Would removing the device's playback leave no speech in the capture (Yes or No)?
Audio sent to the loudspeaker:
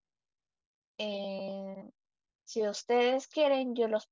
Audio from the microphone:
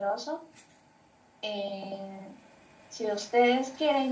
Yes